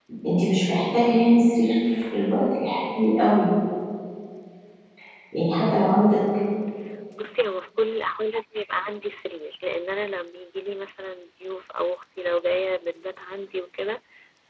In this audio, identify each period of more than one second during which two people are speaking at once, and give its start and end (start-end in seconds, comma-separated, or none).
none